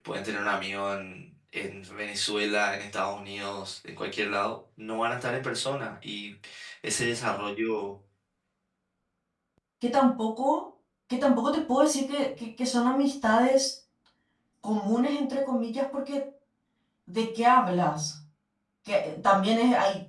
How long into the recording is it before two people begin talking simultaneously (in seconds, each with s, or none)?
none